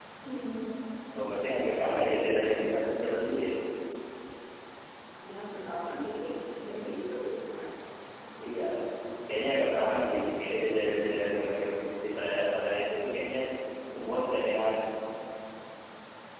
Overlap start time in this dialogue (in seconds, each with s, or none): none